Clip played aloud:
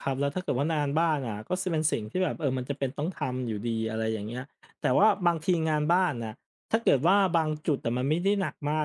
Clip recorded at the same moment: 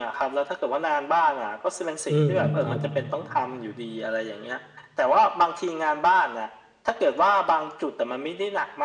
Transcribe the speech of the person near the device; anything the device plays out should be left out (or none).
อืมครับ